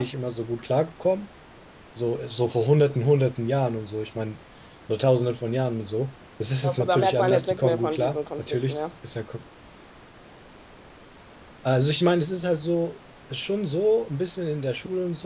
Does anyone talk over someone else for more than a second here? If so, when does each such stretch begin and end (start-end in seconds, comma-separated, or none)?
6.6-8.9